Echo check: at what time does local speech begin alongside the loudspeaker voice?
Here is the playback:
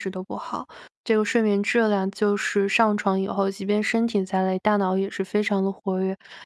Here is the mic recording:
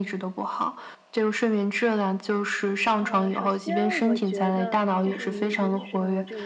3 s

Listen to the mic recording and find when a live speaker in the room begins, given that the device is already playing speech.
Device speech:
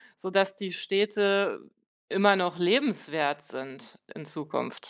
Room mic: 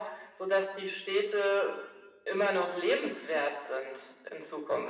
none

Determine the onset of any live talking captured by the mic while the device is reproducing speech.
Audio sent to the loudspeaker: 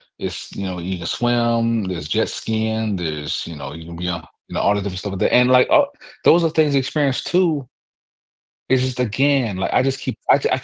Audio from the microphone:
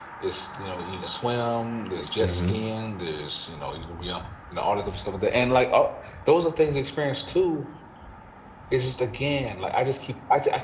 2 s

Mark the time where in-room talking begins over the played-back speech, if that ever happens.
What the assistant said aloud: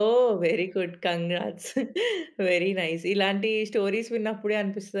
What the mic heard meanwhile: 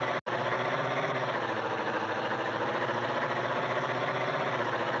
none

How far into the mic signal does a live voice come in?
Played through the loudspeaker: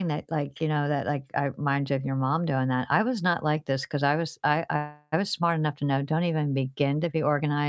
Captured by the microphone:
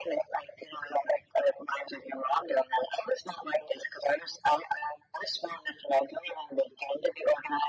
none

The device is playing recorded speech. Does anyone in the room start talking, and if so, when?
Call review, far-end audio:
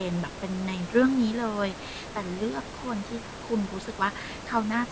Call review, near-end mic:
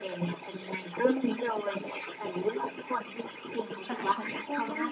4 s

